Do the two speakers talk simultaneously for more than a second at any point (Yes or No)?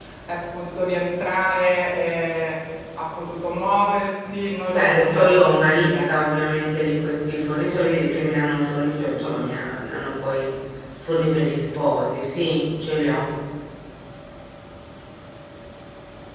Yes